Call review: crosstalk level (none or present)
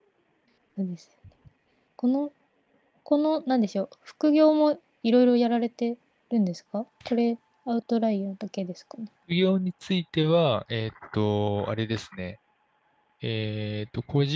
none